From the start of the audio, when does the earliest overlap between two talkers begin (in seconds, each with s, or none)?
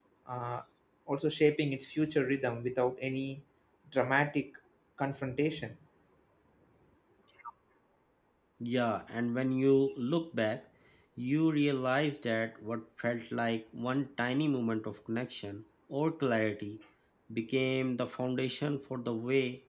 none